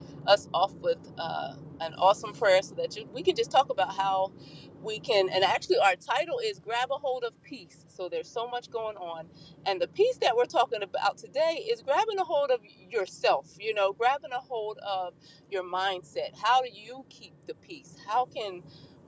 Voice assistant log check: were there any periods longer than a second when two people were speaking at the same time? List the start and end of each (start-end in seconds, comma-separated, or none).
none